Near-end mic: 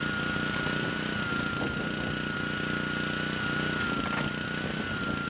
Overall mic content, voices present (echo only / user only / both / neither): neither